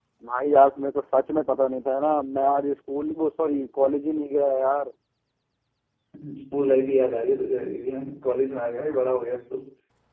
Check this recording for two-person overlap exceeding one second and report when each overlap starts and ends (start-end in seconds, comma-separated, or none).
none